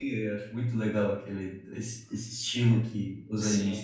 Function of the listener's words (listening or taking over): taking over